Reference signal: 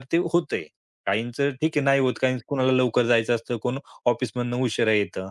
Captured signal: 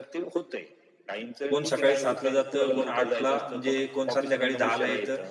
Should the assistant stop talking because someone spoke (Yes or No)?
Yes